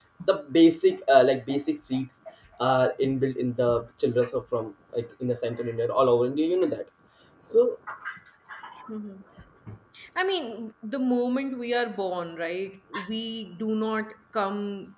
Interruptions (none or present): none